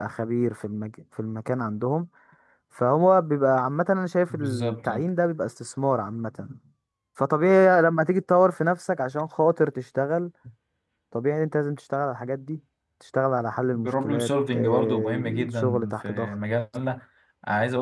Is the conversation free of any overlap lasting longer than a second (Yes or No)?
No